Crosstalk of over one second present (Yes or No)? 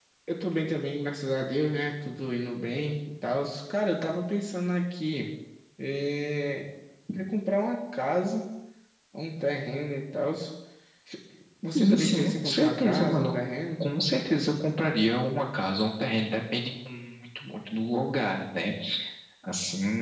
Yes